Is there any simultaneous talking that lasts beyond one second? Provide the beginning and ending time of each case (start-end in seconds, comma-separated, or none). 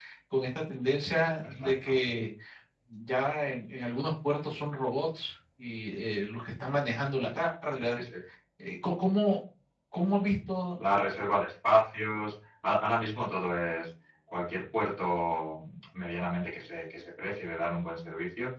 none